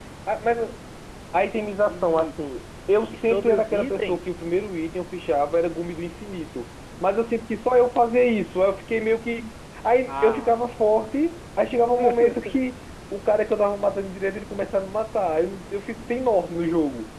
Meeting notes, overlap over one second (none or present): present